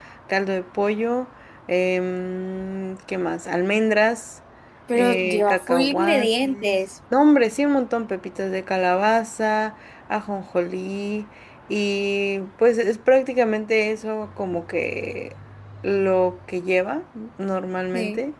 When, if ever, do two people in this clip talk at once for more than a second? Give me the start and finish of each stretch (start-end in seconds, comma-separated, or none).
4.9-6.8